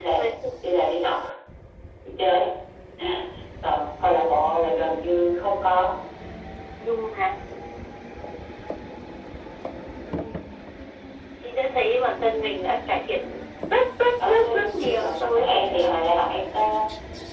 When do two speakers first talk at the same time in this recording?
14.2 s

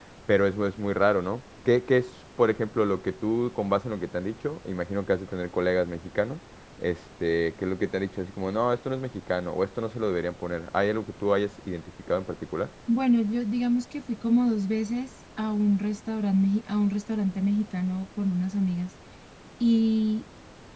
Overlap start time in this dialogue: none

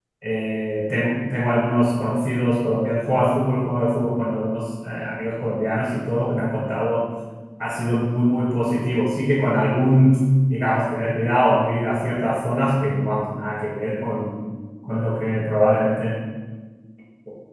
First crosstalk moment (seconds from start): none

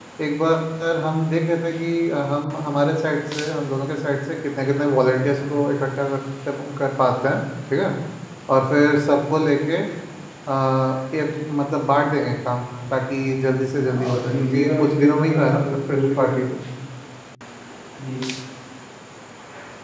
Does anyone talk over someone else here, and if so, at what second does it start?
13.8 s

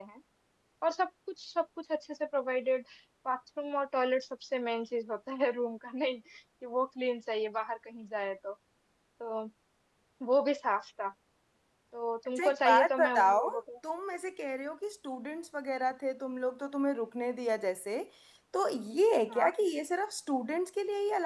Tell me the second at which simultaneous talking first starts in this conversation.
12.3 s

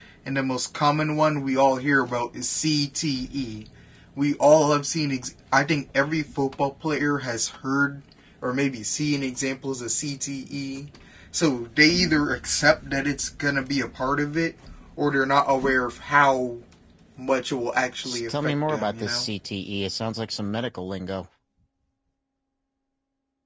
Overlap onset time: 18.0 s

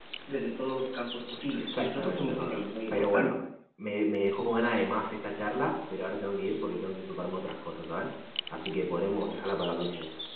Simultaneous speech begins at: 1.6 s

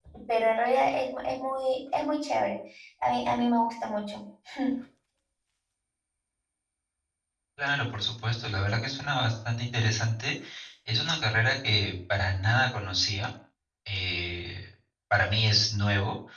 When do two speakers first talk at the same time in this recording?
none

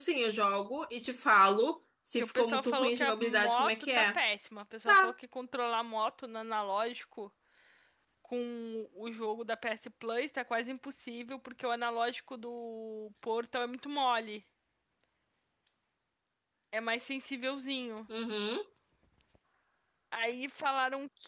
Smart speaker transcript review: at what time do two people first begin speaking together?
2.2 s

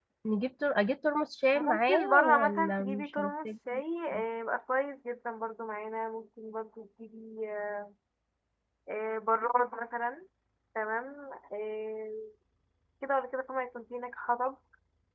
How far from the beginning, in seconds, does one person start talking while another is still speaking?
1.6 s

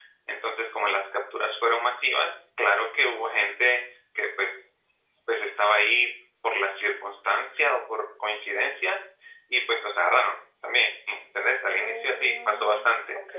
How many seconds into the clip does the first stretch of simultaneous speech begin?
11.8 s

